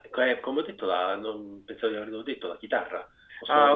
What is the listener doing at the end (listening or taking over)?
listening